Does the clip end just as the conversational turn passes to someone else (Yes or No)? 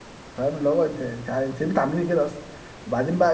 No